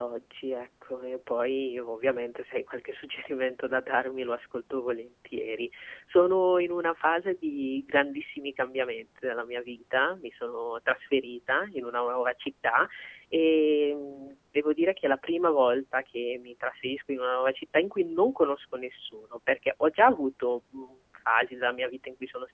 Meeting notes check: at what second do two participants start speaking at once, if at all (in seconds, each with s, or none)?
none